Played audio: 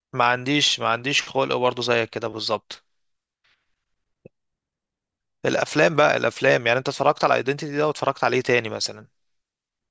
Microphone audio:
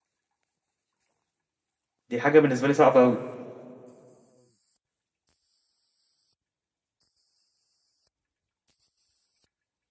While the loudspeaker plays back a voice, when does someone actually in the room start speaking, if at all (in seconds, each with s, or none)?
2.1 s